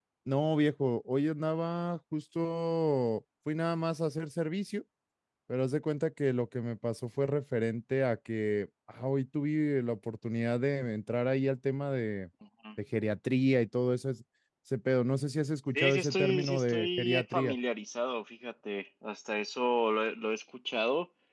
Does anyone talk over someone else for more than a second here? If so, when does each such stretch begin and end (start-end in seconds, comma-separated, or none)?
15.8-17.6